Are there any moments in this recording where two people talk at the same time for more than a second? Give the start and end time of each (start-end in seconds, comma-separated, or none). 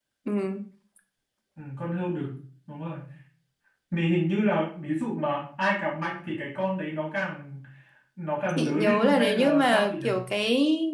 8.6-9.9